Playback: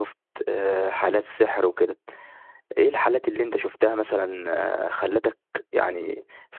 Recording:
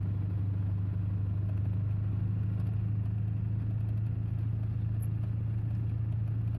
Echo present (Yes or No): No